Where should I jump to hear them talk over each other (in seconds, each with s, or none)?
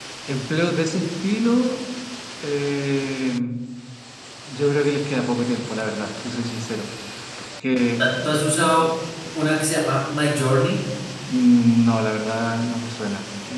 none